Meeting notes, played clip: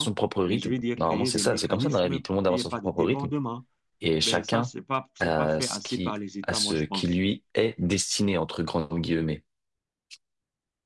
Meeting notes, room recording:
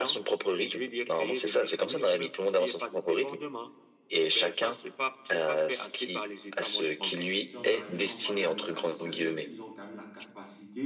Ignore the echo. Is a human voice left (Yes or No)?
Yes